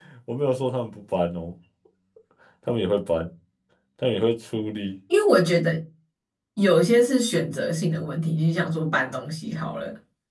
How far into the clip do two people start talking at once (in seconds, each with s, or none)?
none